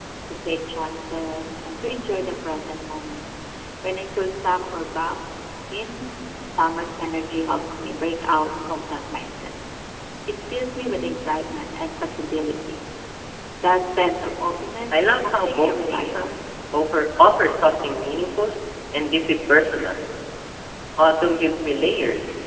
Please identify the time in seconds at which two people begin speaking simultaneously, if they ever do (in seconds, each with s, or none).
14.9 s